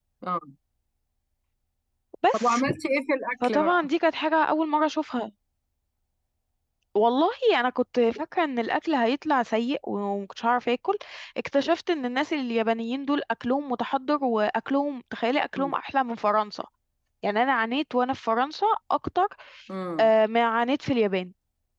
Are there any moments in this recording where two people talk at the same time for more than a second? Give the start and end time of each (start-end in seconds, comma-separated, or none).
none